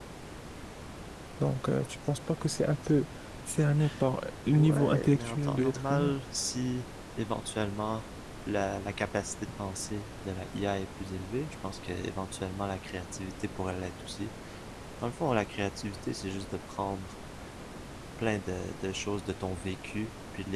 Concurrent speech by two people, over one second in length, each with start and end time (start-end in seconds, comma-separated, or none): 4.5-6.1